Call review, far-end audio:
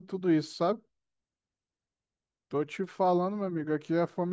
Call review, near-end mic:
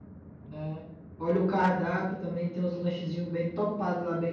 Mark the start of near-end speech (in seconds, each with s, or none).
0.4 s